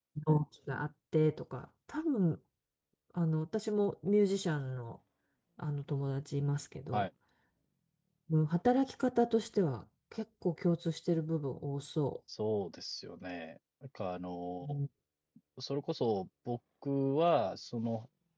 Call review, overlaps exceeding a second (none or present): none